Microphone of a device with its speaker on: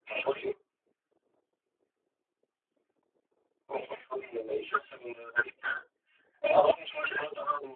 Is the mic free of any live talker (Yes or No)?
Yes